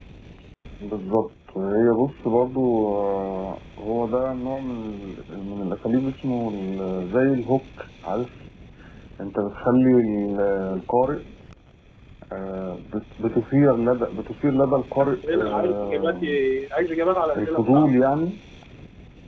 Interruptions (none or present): present